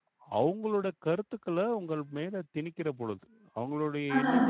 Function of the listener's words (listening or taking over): listening